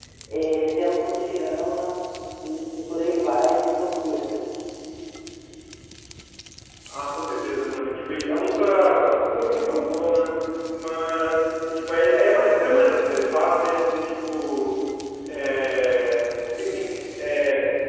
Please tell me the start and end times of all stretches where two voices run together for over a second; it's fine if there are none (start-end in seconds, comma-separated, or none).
none